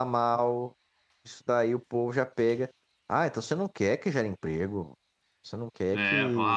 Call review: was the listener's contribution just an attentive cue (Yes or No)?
No